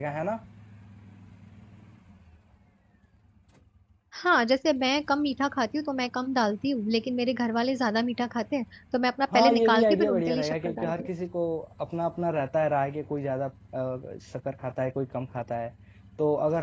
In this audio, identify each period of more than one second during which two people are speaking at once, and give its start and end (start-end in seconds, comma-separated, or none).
9.3-11.1